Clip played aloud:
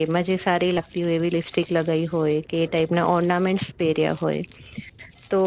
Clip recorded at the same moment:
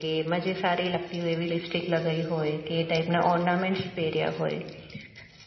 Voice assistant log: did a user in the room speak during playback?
No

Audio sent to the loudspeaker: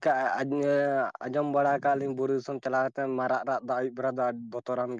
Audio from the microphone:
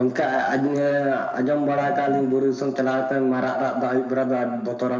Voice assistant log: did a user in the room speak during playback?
No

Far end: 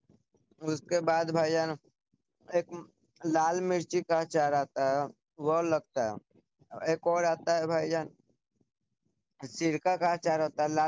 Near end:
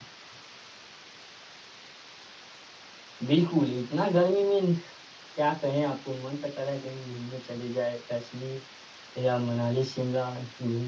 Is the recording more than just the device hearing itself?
Yes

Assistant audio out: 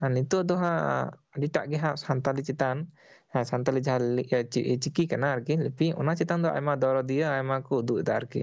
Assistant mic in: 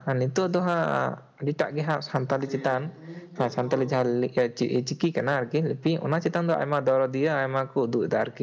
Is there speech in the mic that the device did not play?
Yes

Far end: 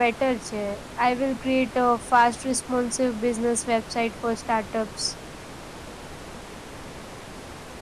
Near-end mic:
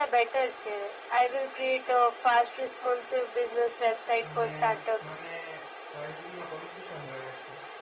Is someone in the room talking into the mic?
Yes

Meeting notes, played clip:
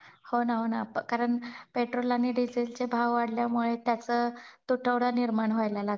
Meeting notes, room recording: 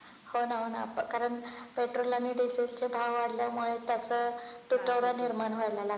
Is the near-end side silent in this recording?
No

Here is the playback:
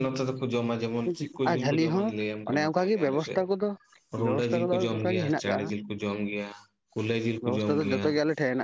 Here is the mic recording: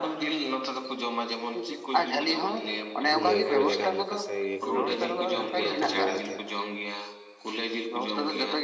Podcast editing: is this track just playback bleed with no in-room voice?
No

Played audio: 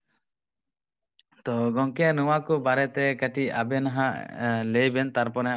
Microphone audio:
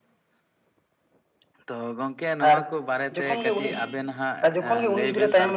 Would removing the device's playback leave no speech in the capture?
No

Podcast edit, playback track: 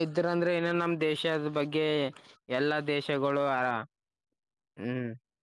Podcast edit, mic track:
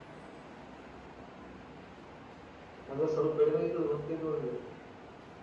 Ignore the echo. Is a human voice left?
Yes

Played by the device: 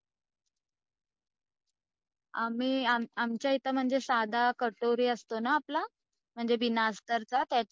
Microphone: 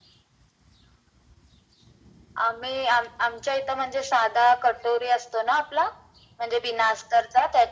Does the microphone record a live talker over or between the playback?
No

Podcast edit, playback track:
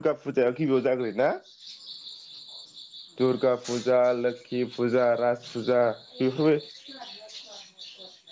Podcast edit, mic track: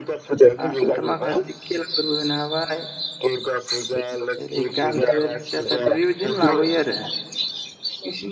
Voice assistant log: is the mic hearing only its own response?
No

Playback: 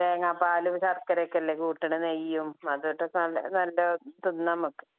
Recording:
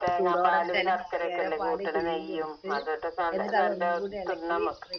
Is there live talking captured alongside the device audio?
Yes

